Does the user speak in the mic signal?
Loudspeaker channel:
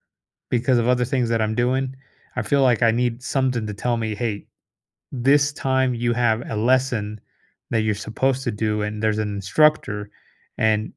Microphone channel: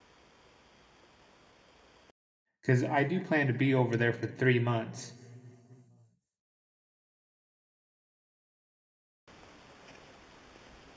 Yes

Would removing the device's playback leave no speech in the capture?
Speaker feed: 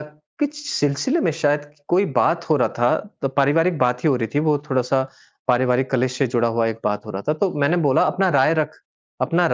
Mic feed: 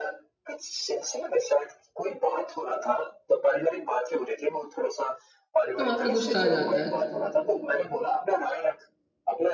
No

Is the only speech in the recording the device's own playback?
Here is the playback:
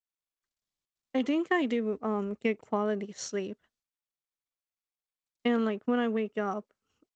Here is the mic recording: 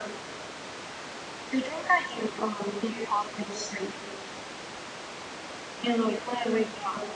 Yes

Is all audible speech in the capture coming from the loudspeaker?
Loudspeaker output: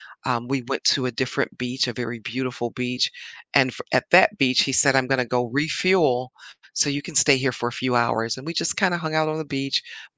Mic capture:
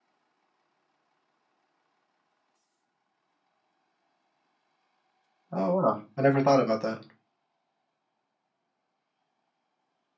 No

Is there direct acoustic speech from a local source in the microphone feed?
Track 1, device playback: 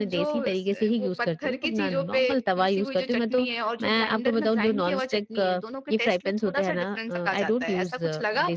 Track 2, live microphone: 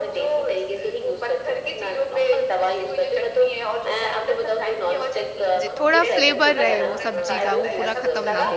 Yes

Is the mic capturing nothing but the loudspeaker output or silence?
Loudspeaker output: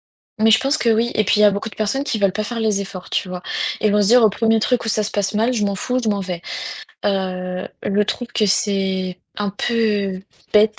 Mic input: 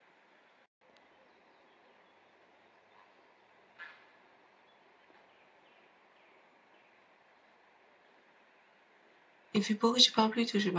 No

